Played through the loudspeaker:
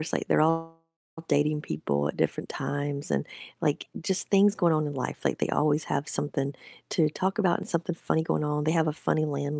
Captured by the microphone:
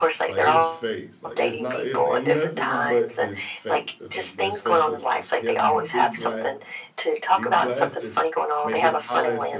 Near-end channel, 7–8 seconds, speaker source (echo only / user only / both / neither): both